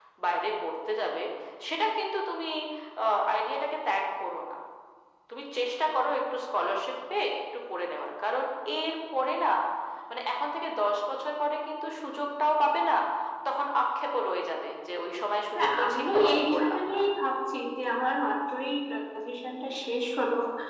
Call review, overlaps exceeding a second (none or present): present